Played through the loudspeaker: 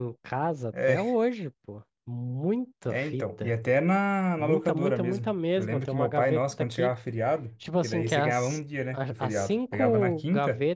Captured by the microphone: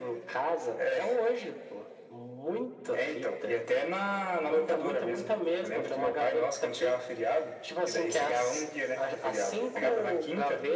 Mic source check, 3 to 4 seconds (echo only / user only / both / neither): echo only